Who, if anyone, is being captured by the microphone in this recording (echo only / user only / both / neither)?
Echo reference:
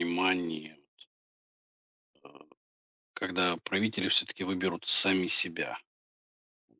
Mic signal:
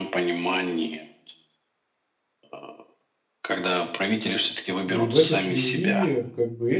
both